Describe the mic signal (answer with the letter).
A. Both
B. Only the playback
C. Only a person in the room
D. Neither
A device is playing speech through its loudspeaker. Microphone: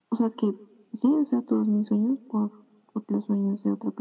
B